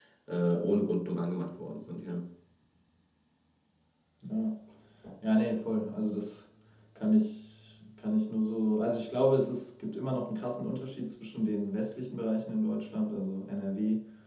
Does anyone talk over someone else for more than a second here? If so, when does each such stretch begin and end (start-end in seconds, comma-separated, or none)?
none